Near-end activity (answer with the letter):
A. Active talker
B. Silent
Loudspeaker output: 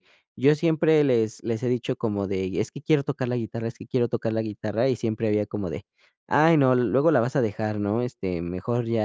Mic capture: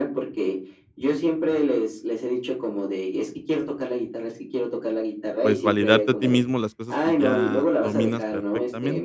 A